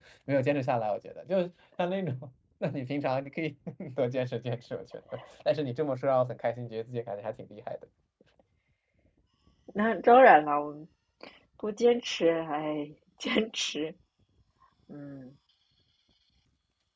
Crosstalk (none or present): none